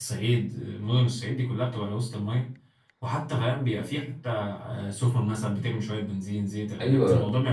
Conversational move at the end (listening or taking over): taking over